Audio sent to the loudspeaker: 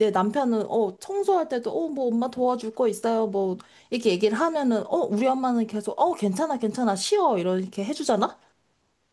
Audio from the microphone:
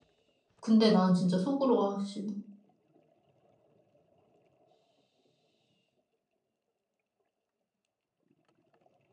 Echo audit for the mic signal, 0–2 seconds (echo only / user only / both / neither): user only